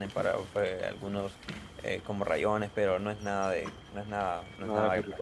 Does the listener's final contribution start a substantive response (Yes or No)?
Yes